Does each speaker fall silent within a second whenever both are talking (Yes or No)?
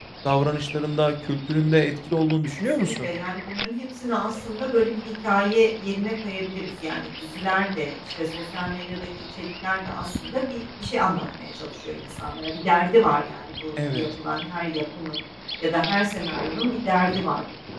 Yes